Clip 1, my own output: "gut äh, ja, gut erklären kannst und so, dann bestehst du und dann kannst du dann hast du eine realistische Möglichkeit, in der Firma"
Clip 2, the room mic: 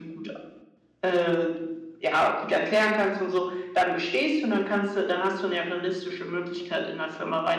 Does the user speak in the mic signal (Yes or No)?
No